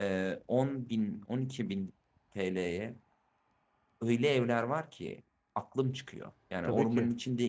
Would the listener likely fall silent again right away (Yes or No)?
Yes